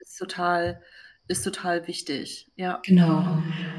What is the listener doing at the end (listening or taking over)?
taking over